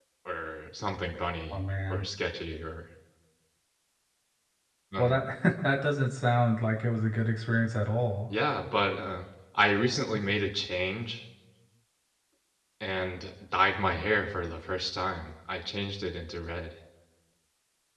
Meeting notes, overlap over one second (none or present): none